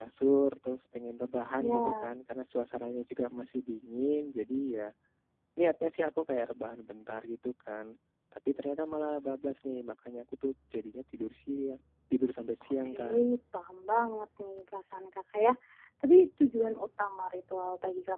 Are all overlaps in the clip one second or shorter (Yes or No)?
Yes